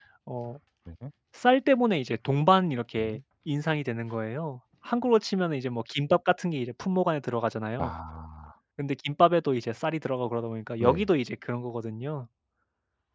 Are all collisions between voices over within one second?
Yes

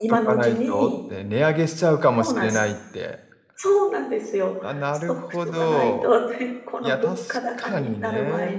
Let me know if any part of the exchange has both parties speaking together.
Yes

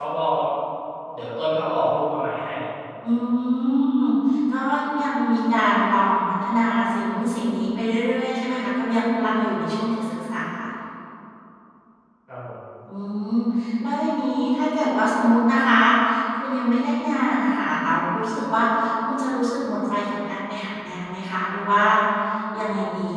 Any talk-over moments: No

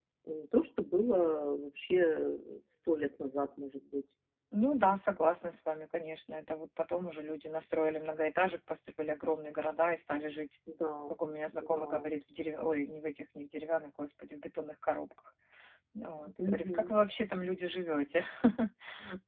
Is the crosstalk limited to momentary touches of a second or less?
Yes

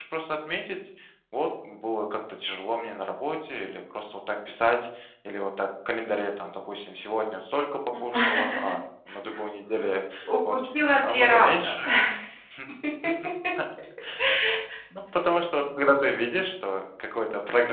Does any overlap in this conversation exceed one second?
Yes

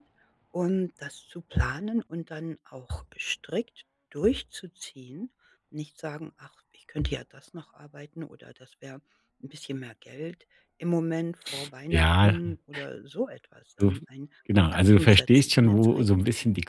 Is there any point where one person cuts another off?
Yes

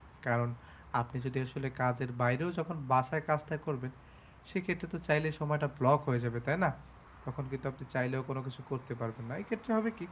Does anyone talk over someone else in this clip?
No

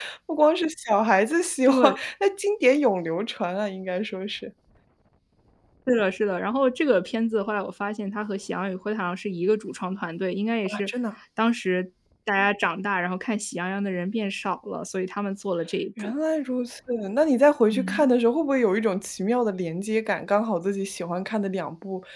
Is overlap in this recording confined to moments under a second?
Yes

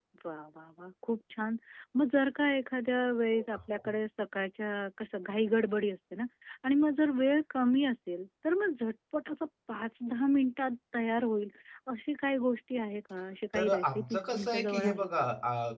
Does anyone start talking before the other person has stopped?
Yes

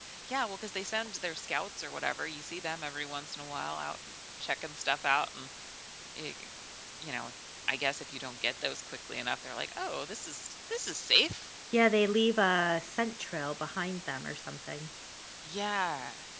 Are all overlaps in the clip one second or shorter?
Yes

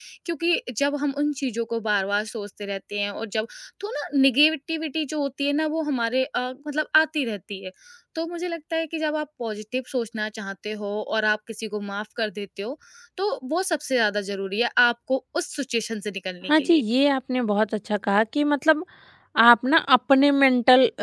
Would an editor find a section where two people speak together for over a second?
No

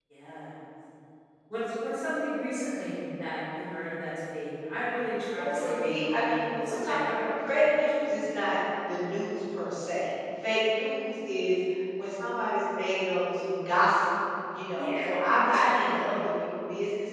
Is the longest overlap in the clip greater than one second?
Yes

